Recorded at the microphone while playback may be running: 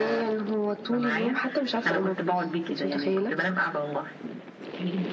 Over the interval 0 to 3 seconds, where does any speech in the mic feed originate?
echo only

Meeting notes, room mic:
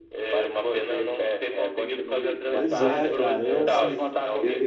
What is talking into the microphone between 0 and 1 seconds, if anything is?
echo only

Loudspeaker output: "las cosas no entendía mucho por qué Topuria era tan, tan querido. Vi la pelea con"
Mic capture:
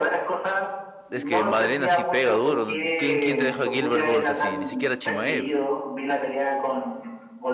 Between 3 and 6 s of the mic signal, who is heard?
both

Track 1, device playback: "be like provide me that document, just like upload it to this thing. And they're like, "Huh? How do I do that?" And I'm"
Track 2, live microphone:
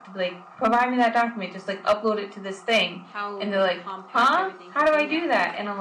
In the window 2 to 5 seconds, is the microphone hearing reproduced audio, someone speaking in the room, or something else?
both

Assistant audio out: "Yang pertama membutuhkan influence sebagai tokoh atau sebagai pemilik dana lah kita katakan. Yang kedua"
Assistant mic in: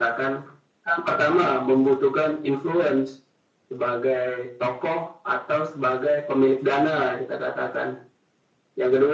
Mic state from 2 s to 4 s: echo only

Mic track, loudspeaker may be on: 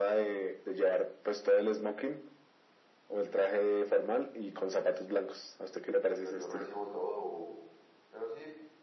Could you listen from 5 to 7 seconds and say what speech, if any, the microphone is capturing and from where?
both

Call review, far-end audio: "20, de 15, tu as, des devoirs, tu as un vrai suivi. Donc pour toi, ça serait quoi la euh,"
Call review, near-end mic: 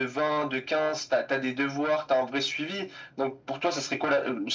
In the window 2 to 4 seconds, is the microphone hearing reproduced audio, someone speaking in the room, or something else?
echo only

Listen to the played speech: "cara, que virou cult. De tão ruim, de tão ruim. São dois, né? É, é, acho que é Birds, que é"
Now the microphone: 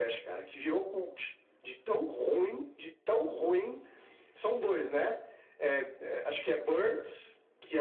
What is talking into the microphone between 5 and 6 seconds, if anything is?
echo only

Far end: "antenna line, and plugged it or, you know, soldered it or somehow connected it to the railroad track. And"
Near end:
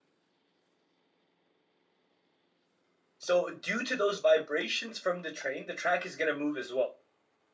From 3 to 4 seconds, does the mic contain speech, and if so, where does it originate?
user only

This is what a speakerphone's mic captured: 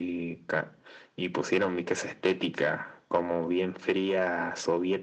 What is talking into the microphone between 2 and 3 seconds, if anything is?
echo only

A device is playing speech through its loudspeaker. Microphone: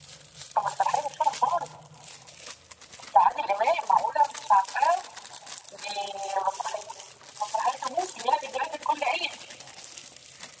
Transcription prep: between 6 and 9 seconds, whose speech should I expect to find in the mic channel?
echo only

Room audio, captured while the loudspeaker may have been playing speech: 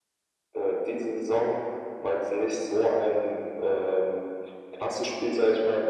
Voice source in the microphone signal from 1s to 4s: echo only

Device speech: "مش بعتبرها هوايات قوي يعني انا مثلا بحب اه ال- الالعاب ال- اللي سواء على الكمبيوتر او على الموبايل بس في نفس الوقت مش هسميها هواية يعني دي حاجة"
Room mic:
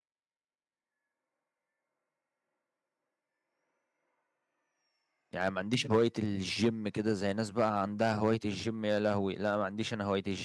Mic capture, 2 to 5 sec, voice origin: neither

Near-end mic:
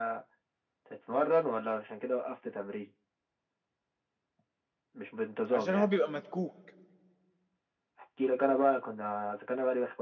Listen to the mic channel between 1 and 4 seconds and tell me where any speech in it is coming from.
echo only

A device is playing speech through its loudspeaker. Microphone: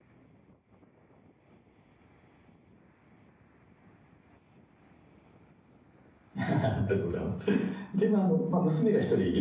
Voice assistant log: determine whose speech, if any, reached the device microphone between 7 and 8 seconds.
user only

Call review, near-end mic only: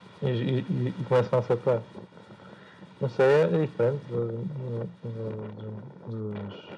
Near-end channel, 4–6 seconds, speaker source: echo only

